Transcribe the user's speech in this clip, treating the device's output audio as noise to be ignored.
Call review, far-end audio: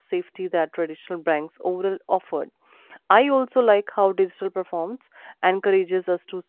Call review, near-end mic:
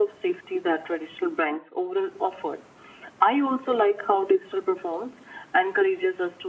none

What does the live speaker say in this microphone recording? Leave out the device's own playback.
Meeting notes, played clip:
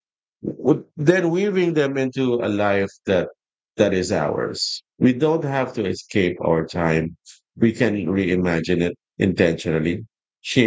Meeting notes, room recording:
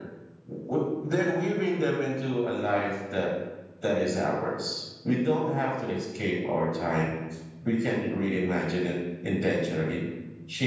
none

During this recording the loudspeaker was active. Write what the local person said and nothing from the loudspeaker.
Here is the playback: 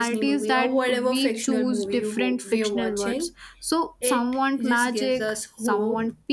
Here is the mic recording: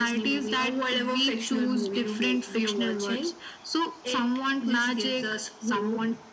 none

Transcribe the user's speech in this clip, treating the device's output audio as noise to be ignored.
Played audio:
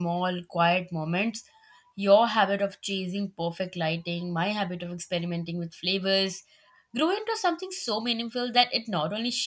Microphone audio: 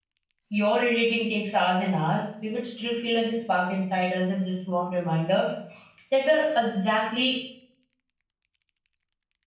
Your editing takes hours and hours. We would still feel like this spark inside us and this warm reminder that we're exactly

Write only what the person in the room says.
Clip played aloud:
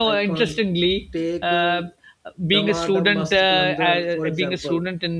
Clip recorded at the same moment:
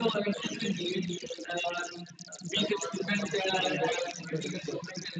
none

